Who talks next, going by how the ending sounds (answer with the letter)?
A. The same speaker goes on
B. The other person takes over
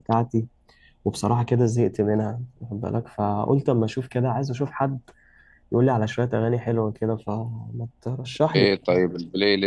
B